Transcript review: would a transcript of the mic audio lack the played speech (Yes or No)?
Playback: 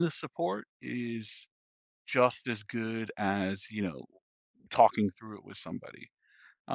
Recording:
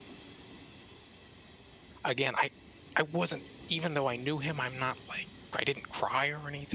Yes